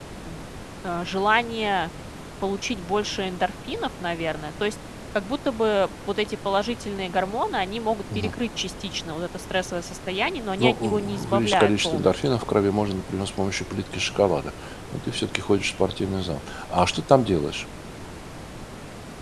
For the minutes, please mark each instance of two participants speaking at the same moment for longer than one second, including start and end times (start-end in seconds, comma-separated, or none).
10.6-12.2